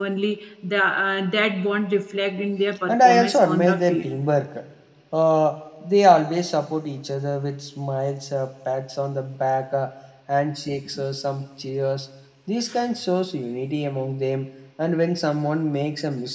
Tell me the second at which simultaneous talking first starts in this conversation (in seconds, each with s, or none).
2.9 s